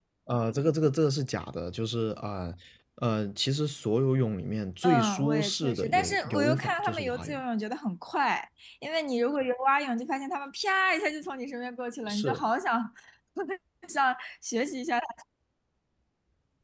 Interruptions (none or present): present